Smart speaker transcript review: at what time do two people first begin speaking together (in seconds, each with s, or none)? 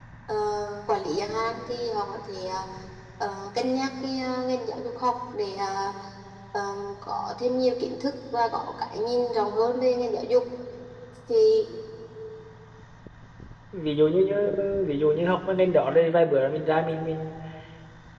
none